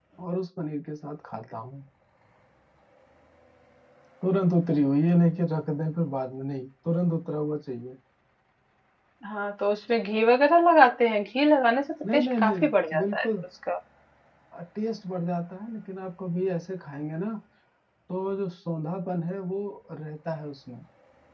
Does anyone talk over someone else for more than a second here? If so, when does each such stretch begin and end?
12.1-13.4

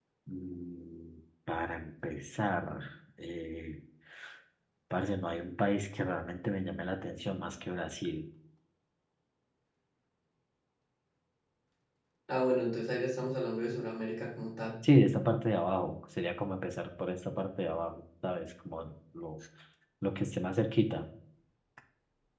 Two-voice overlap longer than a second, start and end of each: none

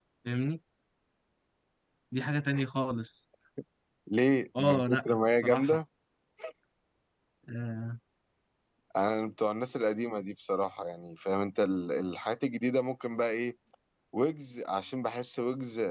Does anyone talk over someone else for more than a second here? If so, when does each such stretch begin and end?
4.6-5.8

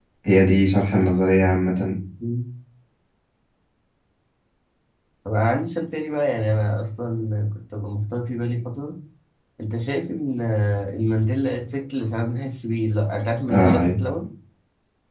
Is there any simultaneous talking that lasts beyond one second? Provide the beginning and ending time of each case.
none

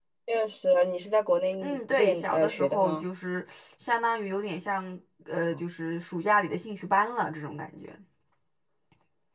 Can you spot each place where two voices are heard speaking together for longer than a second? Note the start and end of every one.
1.6-3.0

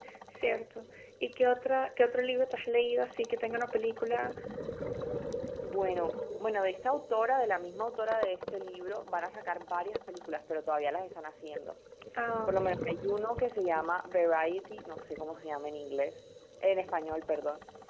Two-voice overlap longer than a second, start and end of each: none

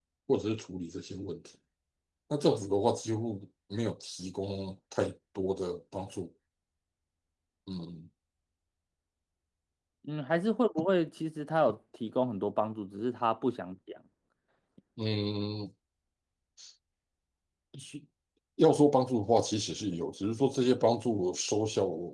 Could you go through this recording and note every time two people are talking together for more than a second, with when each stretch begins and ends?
none

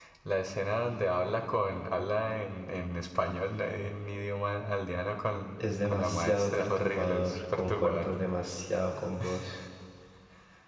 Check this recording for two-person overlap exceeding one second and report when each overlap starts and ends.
5.6-8.2

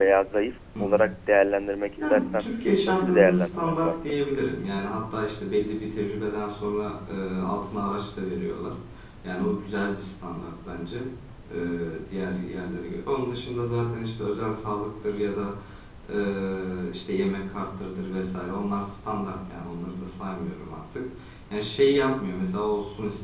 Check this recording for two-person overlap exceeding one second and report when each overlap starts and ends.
2.9-4.2

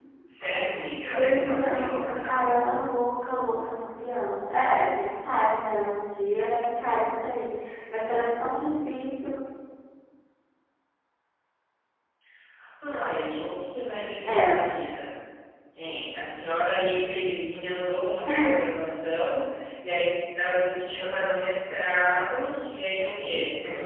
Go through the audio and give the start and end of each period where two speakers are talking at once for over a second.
1.1-2.5

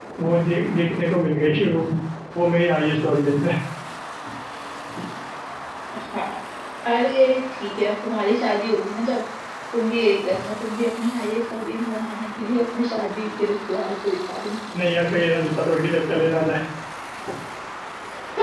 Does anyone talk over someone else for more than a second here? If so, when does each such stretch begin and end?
none

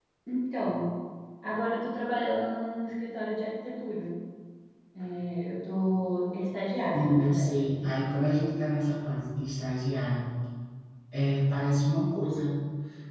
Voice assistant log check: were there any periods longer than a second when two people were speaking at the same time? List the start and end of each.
6.9-8.3

